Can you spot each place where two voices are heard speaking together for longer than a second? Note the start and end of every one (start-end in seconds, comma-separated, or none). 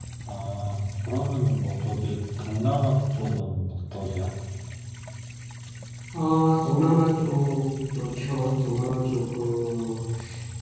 none